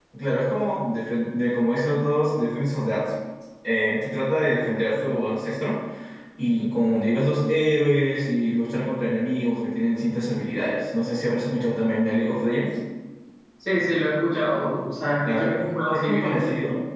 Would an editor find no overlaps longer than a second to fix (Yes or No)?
No